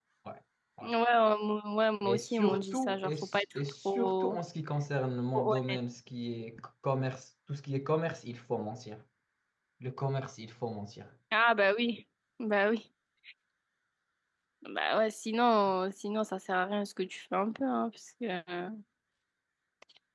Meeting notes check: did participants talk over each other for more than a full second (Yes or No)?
Yes